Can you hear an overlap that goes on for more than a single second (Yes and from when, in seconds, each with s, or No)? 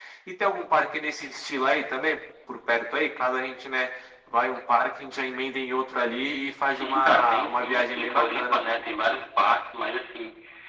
Yes, from 6.6 s